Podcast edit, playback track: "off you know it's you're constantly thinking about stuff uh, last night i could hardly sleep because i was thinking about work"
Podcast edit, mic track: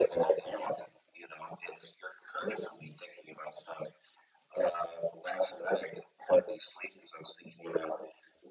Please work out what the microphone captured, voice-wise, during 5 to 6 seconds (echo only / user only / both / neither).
echo only